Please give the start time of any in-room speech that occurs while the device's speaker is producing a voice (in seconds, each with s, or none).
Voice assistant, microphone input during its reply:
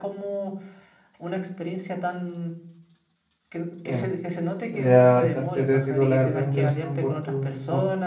3.8 s